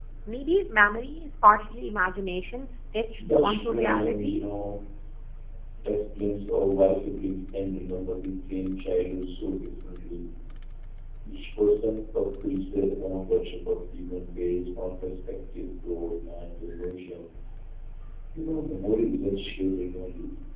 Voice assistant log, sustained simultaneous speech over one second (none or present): present